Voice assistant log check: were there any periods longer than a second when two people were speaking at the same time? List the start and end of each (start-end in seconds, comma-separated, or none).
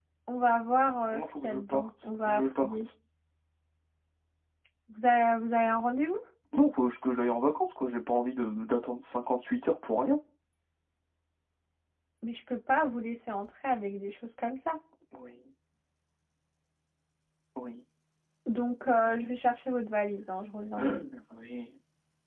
1.1-2.9